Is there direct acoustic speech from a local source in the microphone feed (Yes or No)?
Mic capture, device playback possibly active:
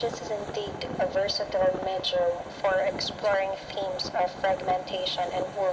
No